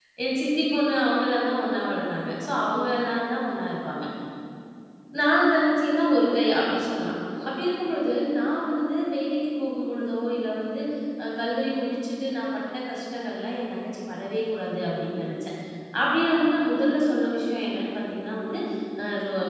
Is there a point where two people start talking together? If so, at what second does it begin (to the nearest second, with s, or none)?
none